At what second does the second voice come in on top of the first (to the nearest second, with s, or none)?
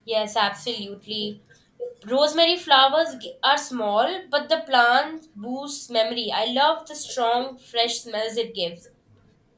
none